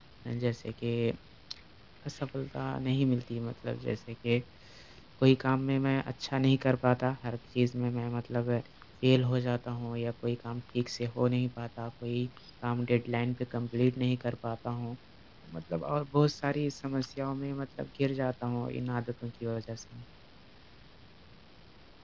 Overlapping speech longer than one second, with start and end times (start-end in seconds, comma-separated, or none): none